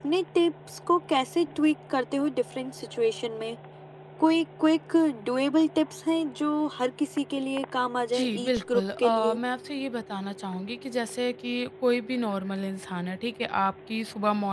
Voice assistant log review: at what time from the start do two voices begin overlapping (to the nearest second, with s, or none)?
8 s